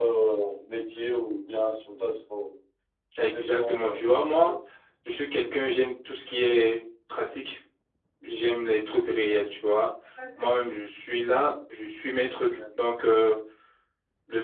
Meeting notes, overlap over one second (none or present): present